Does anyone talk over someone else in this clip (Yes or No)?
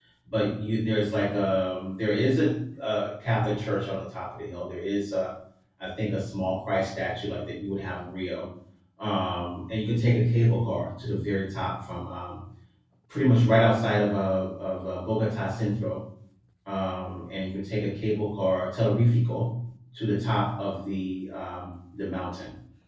No